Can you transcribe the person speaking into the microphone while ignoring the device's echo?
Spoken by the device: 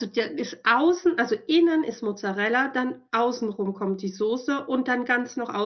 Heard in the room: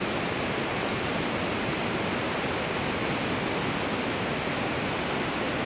none

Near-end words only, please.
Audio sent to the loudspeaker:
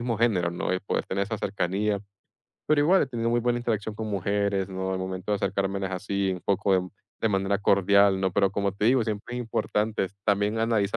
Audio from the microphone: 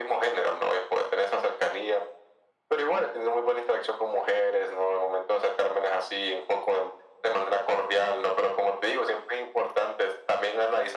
none

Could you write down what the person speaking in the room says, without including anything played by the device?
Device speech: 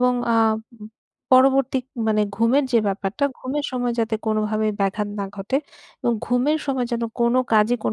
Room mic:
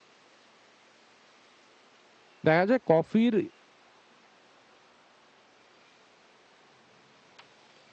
দেখা যায় কফির

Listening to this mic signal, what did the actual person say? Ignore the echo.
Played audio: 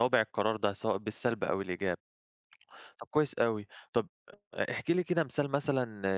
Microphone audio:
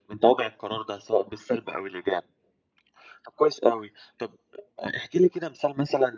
none

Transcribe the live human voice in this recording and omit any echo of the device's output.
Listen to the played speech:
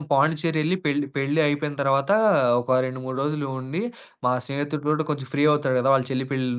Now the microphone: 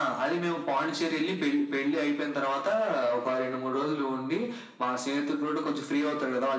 none

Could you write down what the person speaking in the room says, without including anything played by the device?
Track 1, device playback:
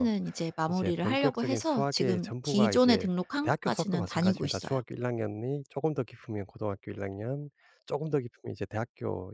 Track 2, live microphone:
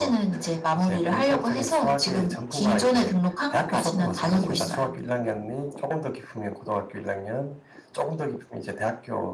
음.

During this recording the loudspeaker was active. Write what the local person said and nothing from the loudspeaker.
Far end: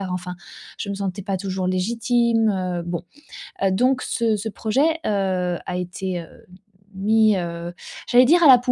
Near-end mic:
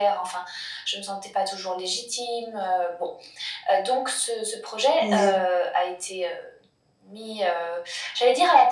Oui,

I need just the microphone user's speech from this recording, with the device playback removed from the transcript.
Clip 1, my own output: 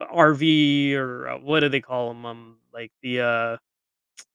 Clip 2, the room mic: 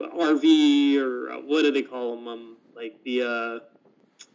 none

